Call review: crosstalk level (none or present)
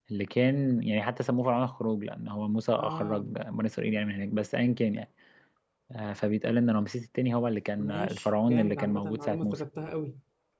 present